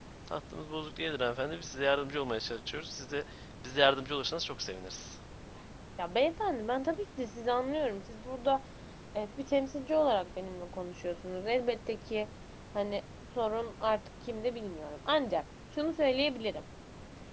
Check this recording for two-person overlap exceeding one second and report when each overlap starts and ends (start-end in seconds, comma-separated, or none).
none